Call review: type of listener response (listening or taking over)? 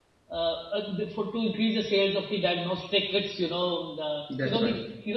listening